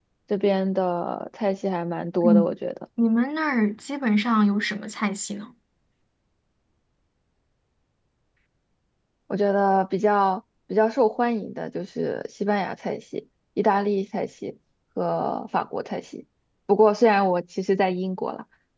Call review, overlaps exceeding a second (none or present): none